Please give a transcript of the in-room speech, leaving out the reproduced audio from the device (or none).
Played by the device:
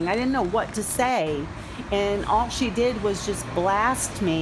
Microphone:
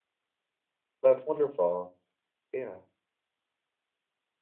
that's wonderful. Yeah,